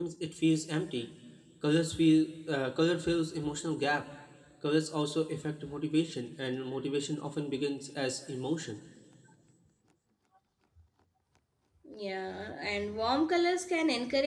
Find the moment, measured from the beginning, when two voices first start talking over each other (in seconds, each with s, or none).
none